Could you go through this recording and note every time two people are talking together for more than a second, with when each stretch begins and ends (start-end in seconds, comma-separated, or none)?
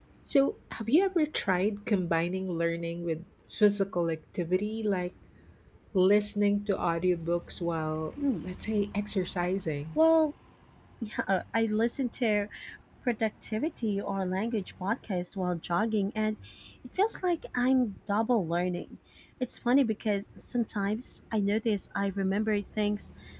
none